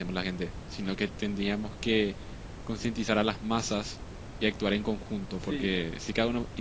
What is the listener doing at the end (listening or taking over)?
listening